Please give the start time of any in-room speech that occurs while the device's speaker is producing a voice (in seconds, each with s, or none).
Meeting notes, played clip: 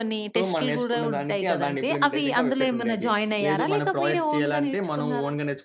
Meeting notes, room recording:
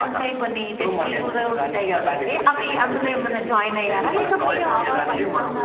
4.0 s